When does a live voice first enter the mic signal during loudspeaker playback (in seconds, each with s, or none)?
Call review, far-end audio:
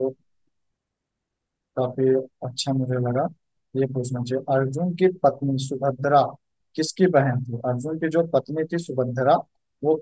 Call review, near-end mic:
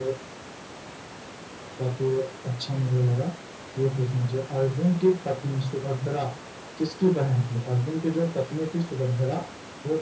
none